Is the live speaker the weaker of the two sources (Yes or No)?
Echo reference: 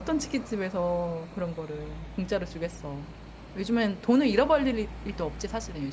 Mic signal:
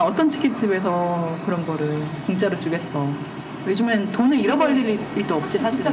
Yes